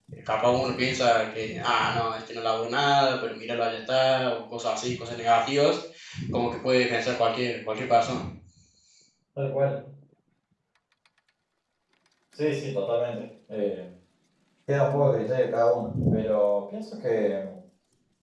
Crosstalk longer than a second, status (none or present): none